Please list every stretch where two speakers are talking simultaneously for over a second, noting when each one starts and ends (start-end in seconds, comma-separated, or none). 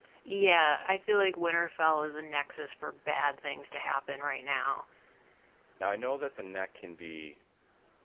none